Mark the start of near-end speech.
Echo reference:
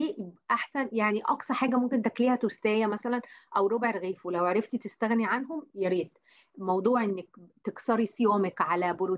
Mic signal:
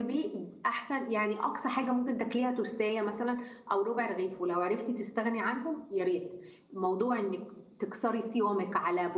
none

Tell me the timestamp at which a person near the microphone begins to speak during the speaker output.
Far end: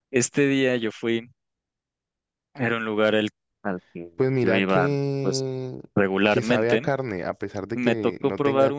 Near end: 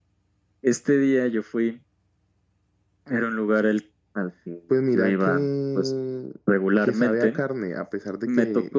none

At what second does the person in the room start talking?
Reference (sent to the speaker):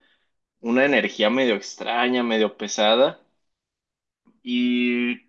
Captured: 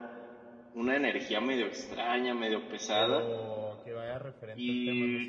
2.9 s

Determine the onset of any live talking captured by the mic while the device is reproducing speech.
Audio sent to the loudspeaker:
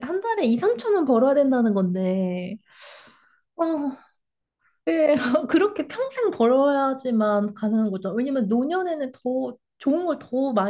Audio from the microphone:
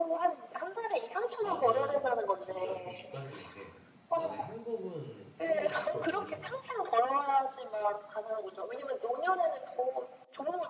1.4 s

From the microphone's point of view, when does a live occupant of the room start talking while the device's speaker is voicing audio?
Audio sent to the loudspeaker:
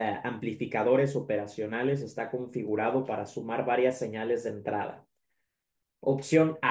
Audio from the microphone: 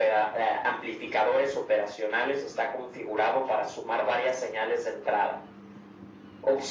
none

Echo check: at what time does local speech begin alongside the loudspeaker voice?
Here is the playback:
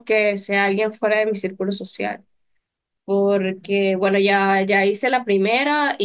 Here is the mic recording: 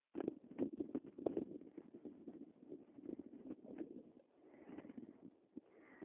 none

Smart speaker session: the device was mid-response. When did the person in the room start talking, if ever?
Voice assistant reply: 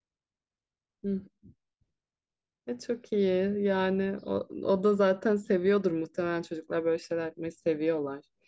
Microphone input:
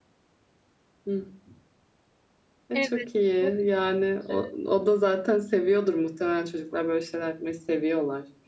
2.7 s

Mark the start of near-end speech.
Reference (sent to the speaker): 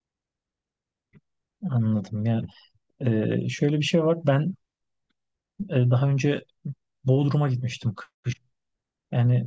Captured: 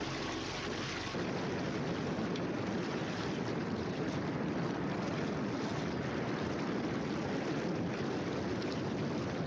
none

